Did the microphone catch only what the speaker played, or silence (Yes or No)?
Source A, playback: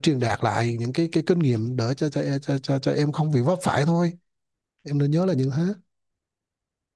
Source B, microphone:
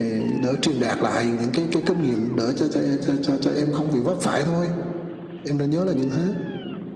Yes